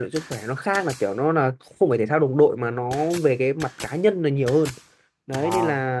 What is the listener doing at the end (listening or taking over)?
listening